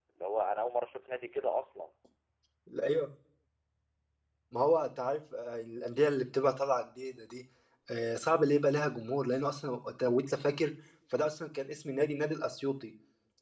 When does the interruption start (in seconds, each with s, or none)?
none